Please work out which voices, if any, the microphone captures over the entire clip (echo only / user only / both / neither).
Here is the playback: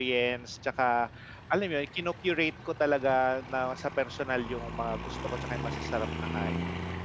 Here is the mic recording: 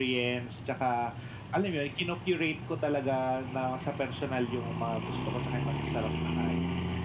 echo only